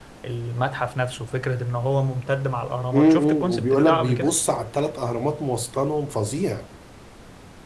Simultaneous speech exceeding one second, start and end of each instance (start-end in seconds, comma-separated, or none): 2.9-4.3